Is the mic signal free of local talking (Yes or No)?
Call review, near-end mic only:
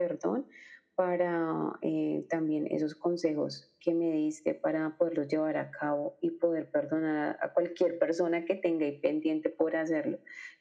Yes